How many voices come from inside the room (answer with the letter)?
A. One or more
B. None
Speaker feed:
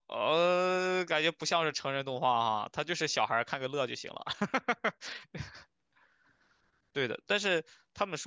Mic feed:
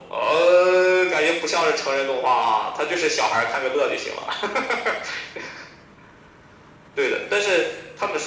B